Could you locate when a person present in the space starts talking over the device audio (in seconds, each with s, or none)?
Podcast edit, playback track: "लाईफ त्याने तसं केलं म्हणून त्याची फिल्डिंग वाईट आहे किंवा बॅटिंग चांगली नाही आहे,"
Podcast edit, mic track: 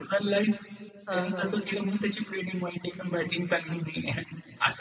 1.1 s